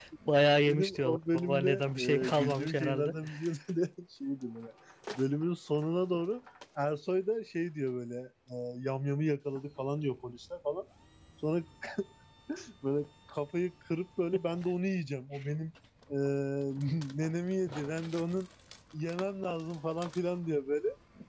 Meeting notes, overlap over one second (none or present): present